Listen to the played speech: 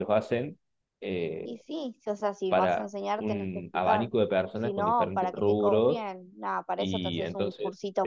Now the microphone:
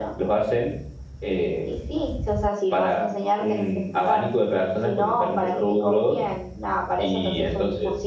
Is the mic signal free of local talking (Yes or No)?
Yes